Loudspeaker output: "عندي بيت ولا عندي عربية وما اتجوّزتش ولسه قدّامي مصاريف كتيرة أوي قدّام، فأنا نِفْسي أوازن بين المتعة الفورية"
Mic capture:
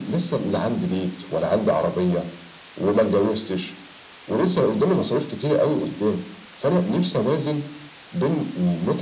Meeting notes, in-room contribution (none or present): none